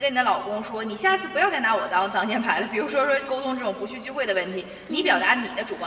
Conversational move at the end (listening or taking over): listening